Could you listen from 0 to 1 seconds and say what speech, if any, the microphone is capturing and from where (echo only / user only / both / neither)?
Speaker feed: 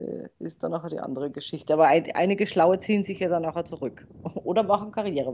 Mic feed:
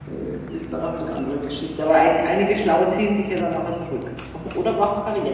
echo only